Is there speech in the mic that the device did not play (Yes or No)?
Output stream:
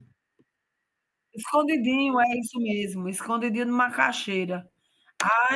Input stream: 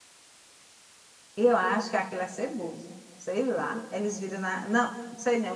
Yes